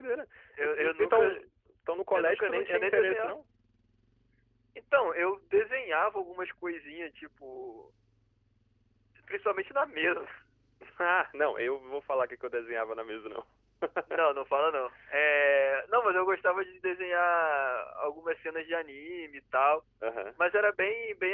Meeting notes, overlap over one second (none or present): present